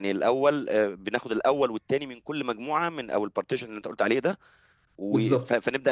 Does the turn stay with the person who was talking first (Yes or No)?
Yes